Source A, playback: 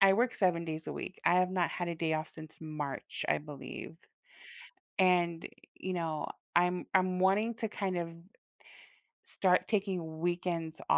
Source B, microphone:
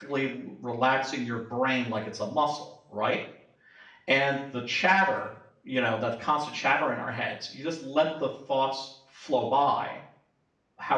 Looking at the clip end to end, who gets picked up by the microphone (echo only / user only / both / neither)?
user only